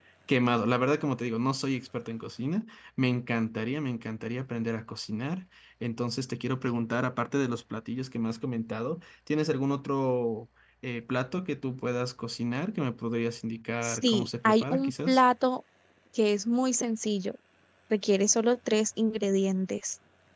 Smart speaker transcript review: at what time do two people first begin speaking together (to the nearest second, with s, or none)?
14 s